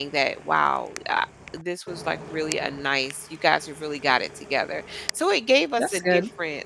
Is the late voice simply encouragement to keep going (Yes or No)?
Yes